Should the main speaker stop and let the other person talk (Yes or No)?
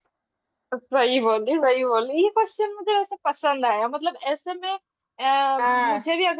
No